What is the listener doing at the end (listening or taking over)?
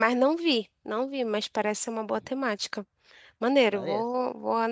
listening